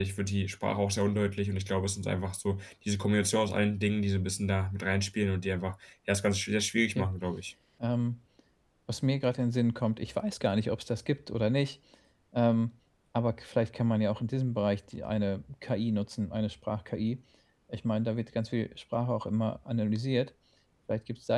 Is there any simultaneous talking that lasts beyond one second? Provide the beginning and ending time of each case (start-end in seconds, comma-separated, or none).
none